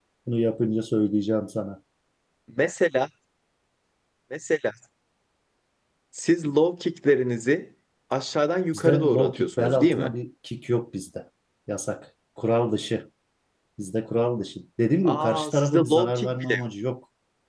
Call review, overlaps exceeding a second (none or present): present